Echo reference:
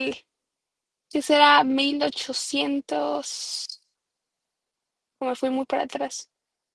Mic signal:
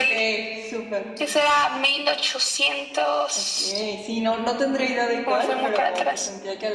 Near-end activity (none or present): present